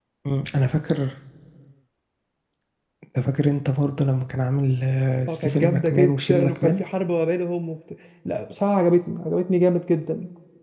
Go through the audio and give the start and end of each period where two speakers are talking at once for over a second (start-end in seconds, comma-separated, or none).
5.3-6.8